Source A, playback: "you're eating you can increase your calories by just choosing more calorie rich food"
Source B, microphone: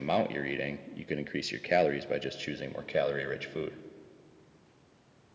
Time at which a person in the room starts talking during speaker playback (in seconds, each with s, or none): none